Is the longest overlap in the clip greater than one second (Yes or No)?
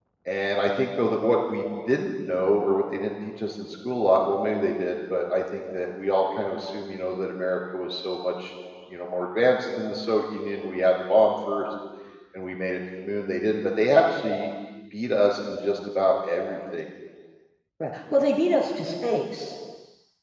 No